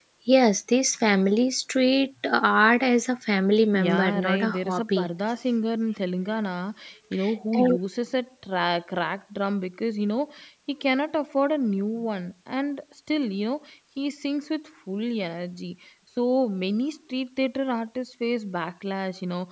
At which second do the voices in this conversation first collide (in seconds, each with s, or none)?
3.7 s